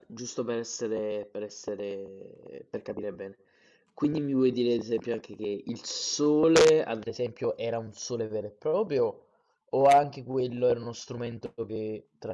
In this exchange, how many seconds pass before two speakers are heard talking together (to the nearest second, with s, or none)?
none